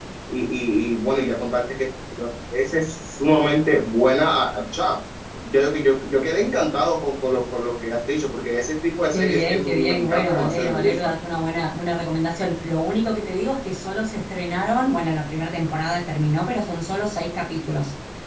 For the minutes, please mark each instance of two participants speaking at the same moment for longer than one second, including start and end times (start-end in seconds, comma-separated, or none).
9.1-11.1